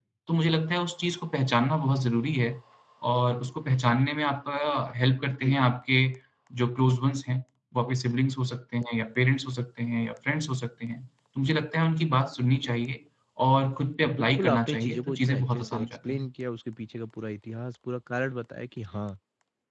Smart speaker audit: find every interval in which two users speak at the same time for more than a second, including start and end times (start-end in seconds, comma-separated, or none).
14.1-16.3